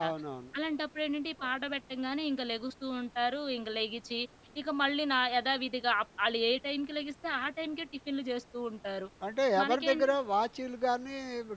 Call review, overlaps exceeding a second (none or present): none